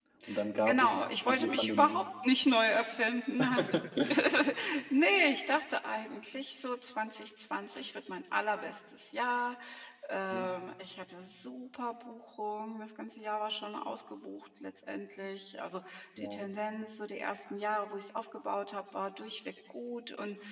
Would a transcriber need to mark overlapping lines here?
Yes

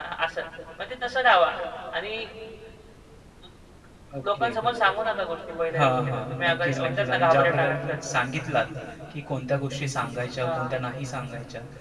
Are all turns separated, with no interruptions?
No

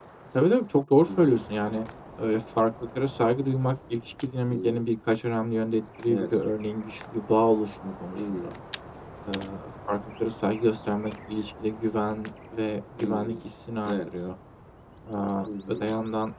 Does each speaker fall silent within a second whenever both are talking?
Yes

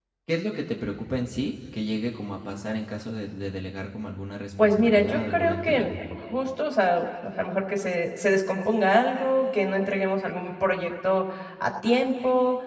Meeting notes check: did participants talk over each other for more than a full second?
Yes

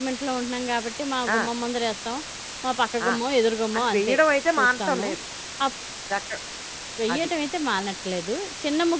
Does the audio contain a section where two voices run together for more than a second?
No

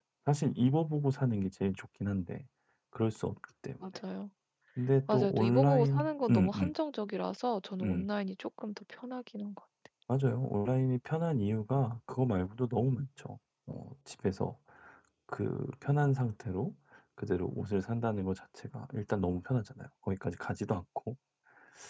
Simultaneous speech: Yes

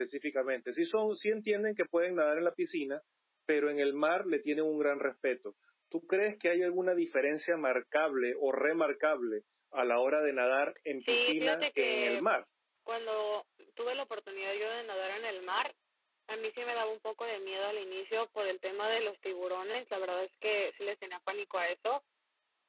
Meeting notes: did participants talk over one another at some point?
Yes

